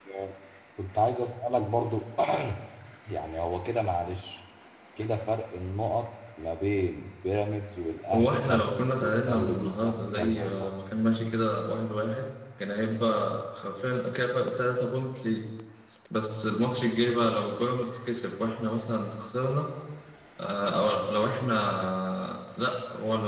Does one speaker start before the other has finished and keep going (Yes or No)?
Yes